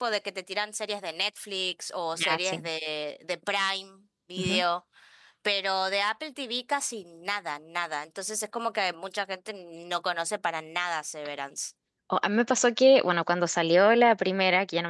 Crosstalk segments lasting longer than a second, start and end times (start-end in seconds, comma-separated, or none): none